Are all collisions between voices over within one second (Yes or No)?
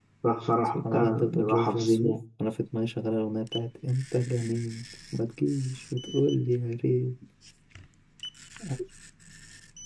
No